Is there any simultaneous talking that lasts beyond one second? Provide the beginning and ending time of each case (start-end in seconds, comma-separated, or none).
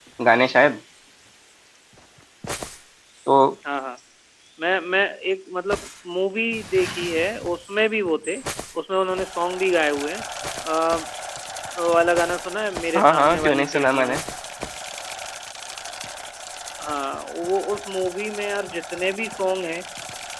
13.0-14.2